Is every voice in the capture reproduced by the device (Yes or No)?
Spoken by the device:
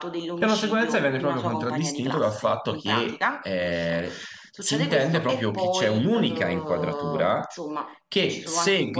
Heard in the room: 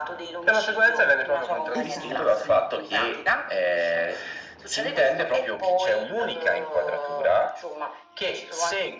No